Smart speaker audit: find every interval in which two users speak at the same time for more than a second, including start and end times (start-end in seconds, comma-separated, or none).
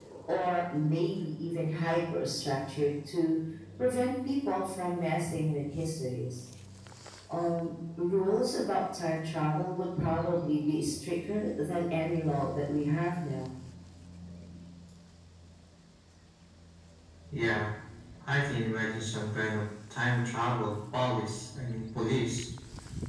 none